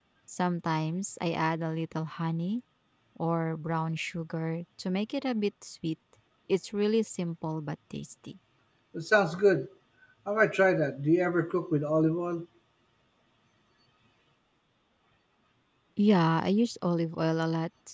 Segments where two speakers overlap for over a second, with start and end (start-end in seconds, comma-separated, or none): none